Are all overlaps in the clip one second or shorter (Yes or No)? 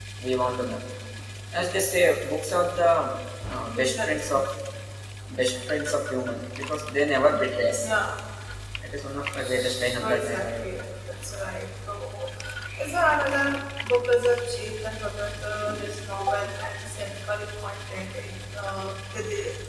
No